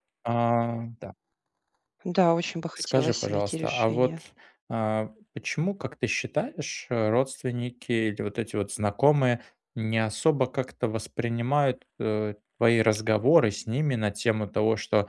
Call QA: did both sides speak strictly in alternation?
No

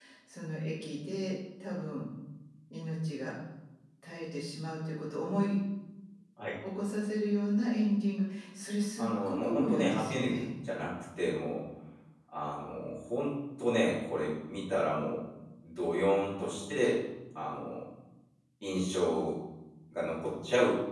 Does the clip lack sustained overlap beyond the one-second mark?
No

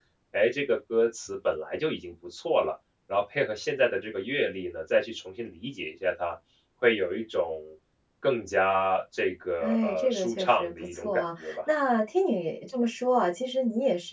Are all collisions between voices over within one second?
No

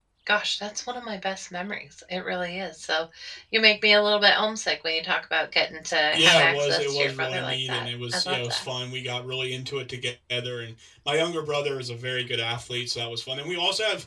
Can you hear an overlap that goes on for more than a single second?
Yes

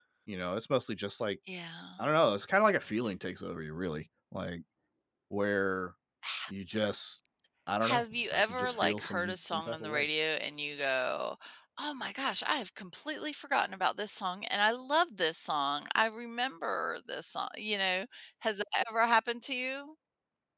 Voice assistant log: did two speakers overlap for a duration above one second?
Yes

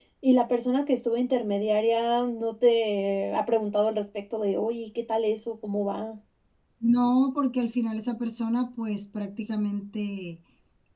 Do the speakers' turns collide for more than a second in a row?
No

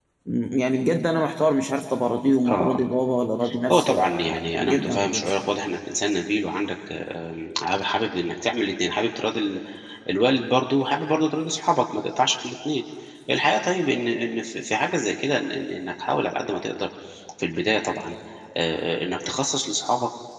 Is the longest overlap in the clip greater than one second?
Yes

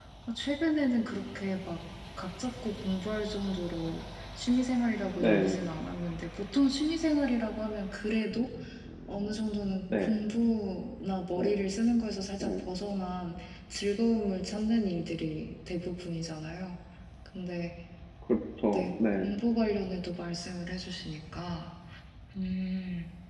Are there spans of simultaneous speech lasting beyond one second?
No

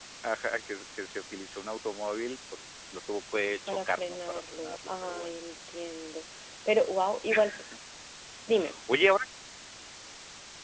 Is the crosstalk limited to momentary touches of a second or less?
No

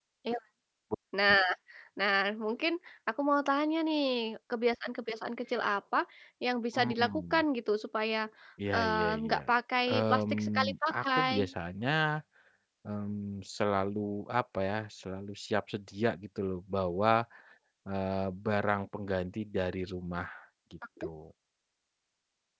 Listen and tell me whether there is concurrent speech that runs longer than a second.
Yes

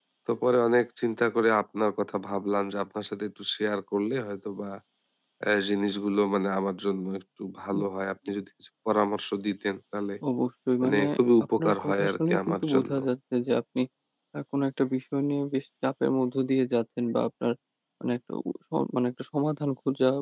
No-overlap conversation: No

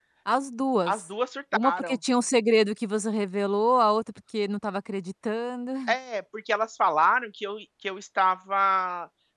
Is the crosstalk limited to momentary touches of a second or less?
Yes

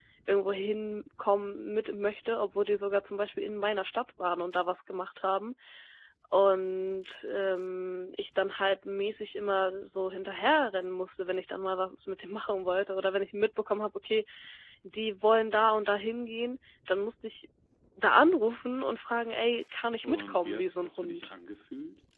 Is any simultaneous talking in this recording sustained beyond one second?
Yes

